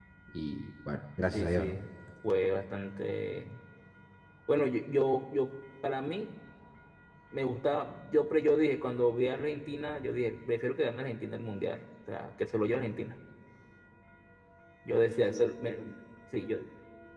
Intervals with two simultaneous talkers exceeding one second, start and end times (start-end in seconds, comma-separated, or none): none